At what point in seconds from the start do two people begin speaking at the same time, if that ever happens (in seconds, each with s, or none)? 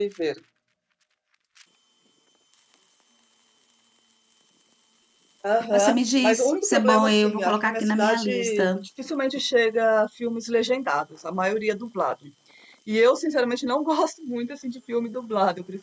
5.7 s